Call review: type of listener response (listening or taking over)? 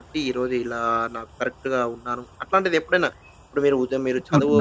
taking over